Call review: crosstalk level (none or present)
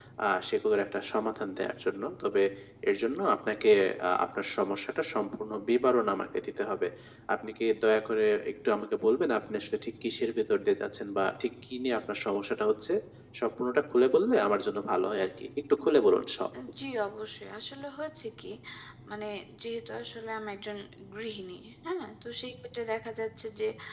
none